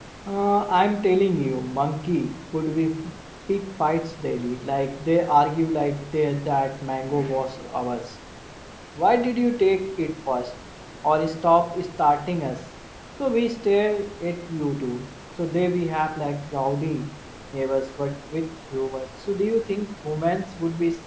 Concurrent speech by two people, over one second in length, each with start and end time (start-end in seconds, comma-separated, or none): none